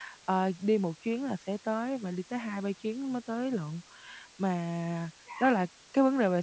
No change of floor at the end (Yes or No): Yes